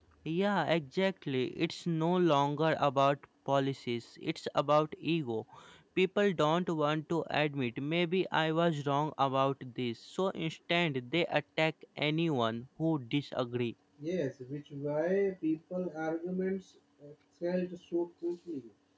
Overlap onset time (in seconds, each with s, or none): none